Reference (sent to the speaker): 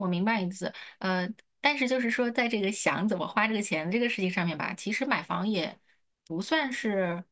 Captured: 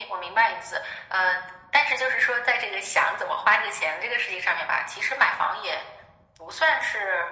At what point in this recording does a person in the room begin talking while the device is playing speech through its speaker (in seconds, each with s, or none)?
none